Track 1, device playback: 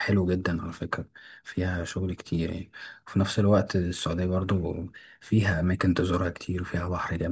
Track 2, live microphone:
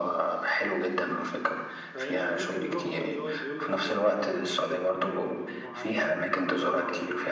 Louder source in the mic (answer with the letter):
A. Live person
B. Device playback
B